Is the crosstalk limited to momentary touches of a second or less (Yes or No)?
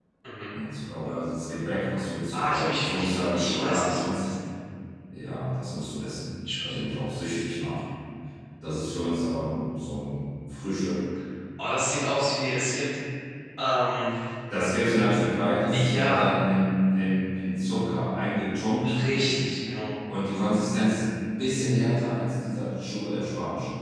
No